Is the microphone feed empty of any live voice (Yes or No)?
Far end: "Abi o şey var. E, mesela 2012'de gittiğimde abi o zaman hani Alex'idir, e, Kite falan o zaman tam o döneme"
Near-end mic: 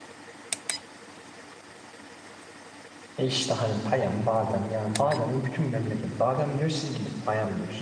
No